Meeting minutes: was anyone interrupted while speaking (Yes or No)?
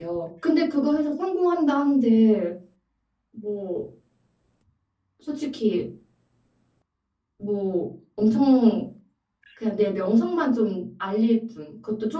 No